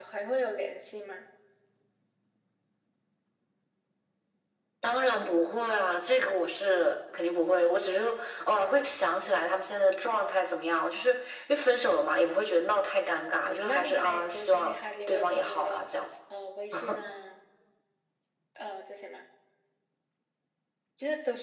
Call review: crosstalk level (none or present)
present